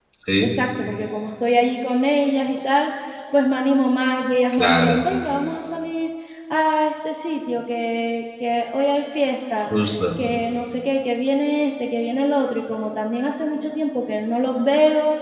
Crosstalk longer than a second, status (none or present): none